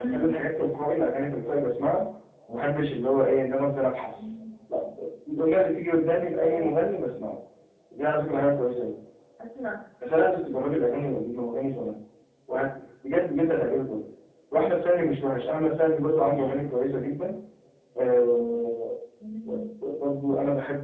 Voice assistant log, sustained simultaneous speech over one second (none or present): none